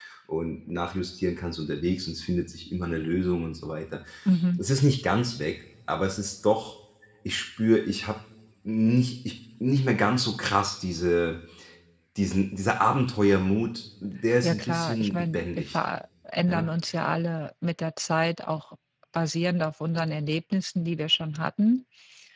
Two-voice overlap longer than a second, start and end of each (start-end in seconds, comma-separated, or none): 14.4-15.8